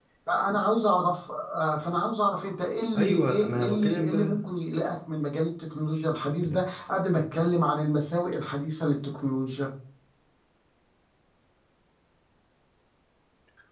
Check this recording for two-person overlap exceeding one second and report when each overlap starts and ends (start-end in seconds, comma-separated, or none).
3.0-4.4